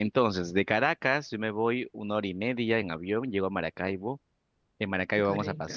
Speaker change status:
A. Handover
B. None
B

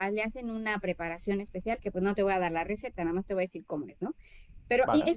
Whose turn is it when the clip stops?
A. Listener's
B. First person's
B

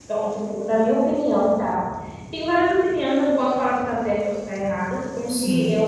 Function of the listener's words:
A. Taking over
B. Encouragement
B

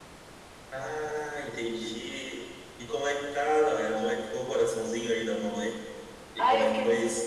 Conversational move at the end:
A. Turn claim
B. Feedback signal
A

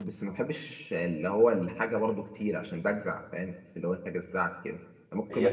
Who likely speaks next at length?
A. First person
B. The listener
B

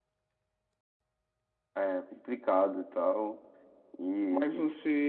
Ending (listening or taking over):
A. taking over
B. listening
A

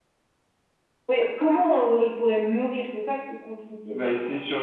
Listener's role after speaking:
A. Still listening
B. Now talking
B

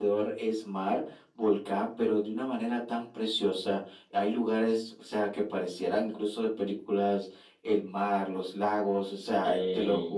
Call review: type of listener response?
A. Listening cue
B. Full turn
A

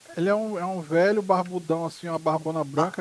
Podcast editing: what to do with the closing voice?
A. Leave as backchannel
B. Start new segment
B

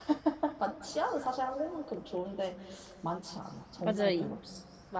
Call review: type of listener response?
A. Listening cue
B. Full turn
B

